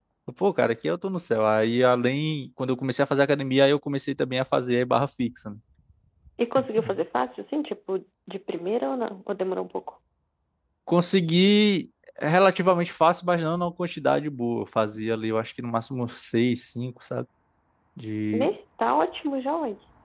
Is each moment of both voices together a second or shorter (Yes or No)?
Yes